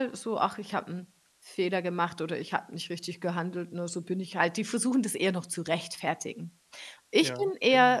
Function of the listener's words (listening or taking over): listening